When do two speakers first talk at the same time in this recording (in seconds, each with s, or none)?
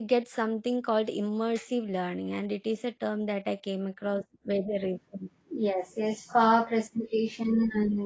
none